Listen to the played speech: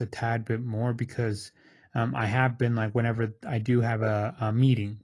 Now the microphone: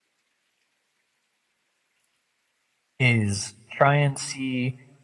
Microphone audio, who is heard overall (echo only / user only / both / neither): user only